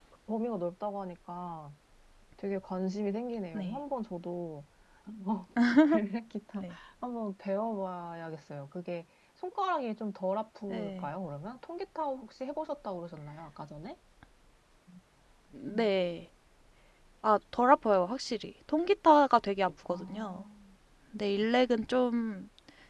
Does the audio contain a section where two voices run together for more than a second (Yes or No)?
No